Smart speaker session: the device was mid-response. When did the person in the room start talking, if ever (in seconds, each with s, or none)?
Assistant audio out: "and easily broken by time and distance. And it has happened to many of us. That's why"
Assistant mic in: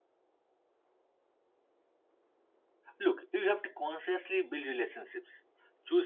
3.0 s